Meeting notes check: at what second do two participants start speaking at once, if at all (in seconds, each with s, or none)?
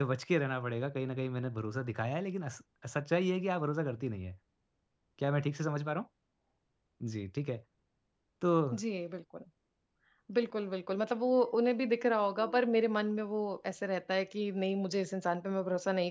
none